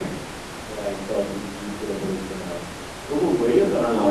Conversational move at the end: listening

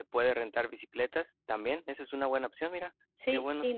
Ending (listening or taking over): taking over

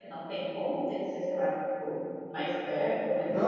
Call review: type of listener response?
taking over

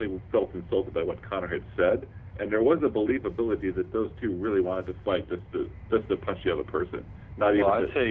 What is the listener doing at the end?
taking over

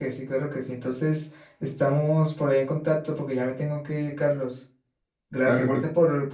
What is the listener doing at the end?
listening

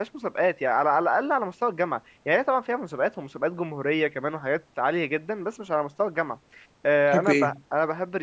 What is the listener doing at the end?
listening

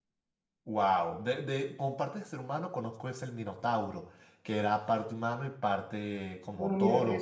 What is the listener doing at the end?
taking over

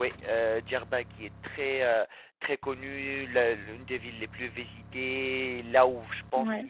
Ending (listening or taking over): listening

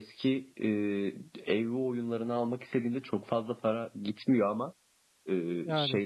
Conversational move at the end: listening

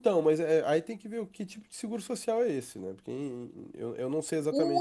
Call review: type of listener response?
taking over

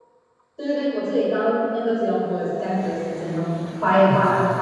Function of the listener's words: taking over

